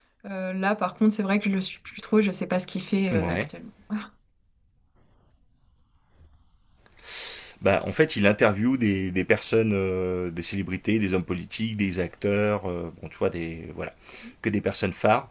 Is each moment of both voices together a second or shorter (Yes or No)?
Yes